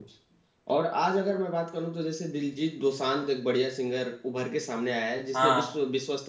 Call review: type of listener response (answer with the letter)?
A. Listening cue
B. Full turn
A